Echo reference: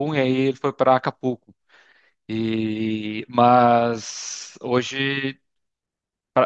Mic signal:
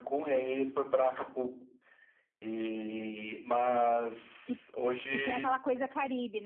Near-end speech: present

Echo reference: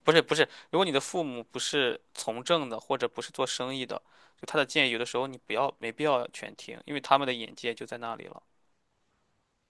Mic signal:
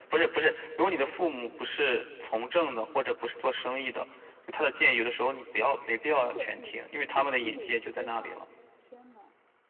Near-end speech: present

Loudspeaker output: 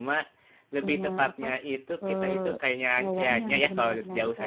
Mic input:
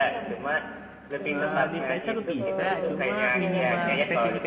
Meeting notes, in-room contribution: present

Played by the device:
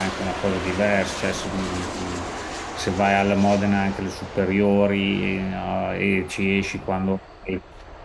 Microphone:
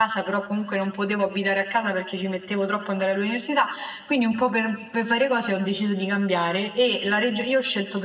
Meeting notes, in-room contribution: present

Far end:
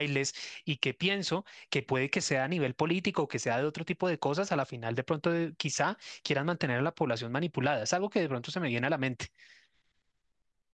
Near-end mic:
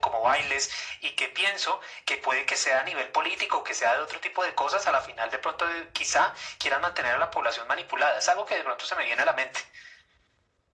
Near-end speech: none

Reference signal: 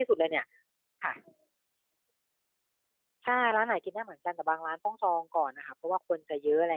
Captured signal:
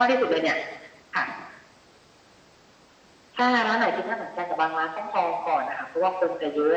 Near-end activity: none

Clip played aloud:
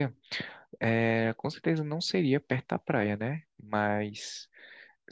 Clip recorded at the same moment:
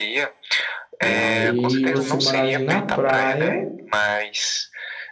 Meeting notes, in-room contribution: present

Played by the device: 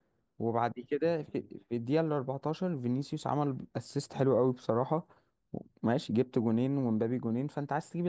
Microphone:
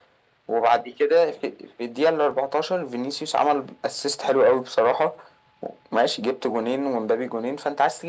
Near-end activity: none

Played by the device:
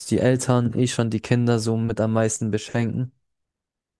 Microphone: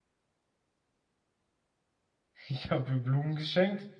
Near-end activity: present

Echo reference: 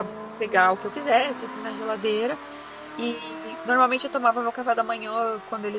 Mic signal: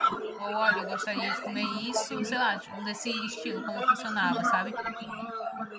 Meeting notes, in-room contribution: present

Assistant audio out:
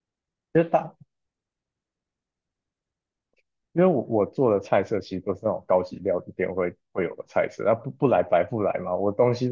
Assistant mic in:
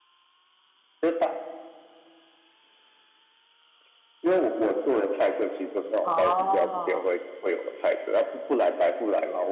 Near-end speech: present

